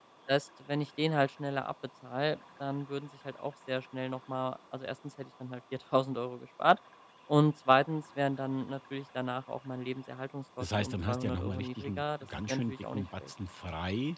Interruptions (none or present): present